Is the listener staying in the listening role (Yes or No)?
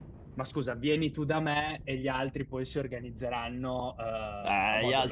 No